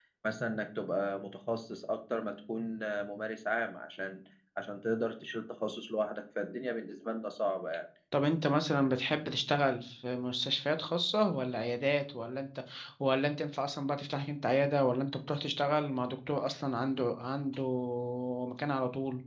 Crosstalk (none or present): none